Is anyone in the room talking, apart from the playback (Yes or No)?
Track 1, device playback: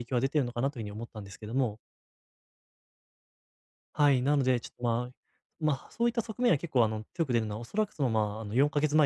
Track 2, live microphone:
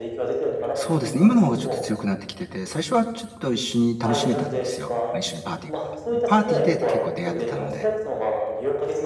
Yes